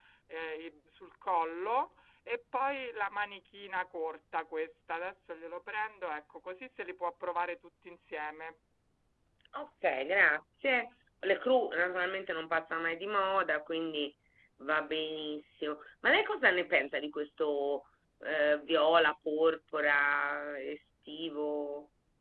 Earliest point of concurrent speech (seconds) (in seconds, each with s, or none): none